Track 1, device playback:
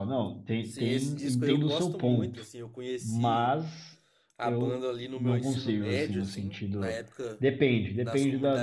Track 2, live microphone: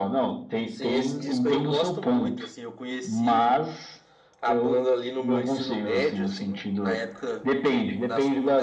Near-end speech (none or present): none